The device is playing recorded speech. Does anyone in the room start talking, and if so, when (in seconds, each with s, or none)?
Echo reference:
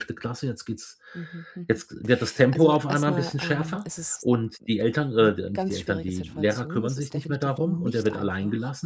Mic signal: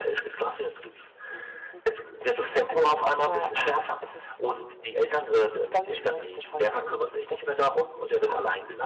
none